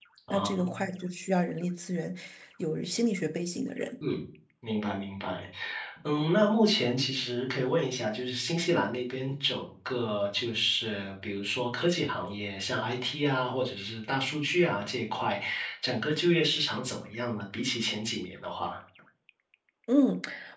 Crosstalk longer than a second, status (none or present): none